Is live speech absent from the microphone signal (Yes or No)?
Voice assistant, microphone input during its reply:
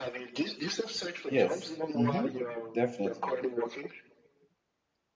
No